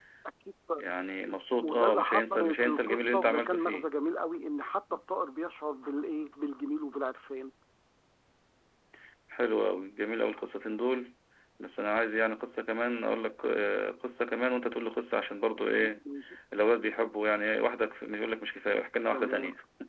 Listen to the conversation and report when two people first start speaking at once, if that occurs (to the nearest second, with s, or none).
2 s